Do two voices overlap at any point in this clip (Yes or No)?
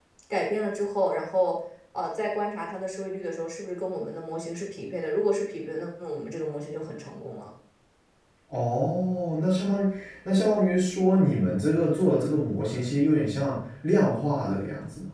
No